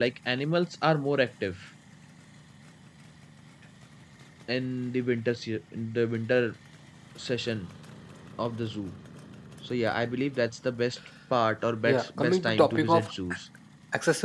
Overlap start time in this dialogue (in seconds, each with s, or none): 11.8 s